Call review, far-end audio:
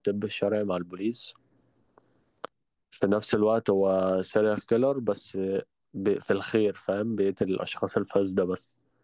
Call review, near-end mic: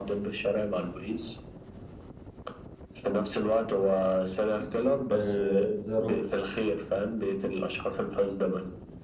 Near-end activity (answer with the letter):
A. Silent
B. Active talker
B